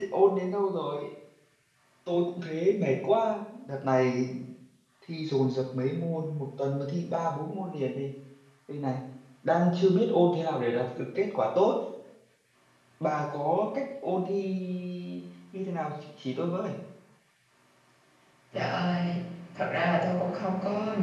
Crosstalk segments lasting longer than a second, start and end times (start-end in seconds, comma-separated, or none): none